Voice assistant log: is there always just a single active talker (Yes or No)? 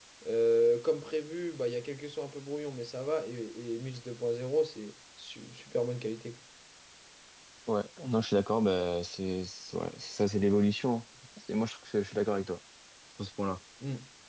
Yes